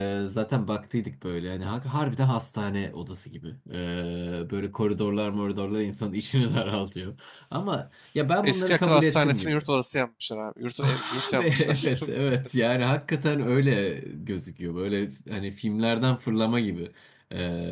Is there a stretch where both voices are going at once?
Yes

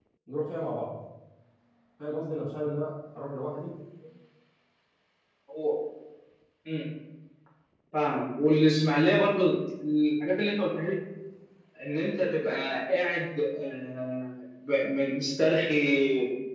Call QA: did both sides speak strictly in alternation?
Yes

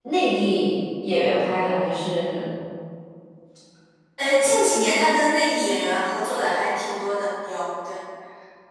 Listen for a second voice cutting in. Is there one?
No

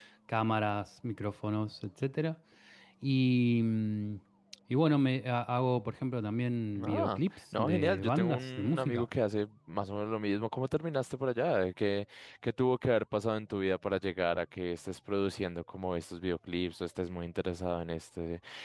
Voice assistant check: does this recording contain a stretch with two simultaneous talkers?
Yes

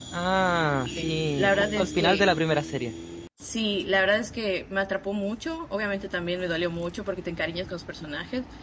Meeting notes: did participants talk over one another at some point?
Yes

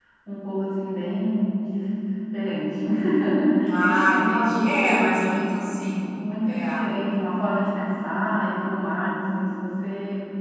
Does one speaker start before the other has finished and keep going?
Yes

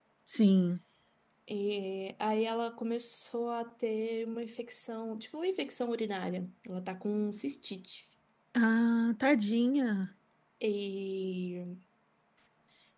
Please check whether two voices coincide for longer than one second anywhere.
No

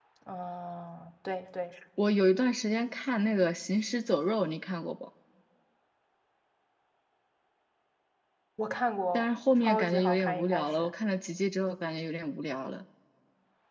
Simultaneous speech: Yes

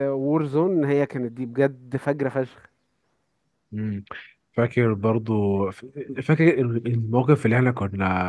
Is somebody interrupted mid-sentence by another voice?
No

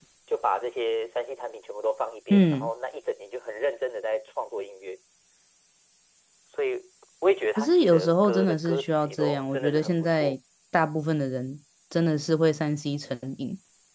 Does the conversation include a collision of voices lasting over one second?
Yes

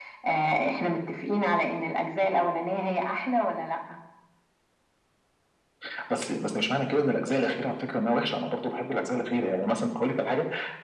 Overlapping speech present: No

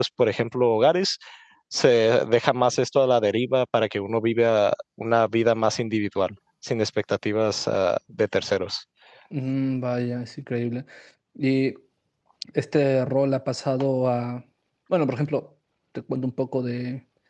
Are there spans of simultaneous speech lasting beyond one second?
No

